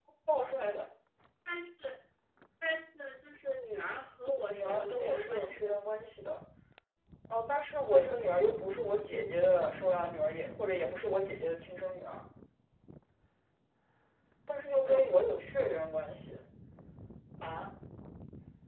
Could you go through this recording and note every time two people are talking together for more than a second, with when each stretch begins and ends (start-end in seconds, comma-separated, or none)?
4.5-5.8